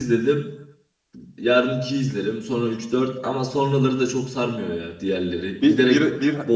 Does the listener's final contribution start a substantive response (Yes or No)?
Yes